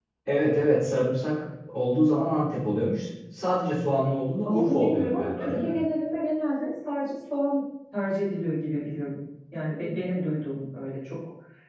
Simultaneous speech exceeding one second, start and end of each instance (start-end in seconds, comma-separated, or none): 4.4-5.7